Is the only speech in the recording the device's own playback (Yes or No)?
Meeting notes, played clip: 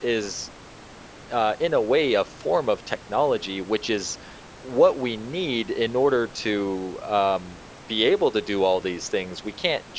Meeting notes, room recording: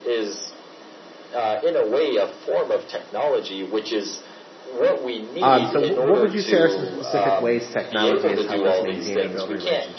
No